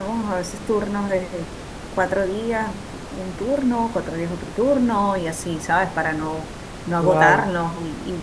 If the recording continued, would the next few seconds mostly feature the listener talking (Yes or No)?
No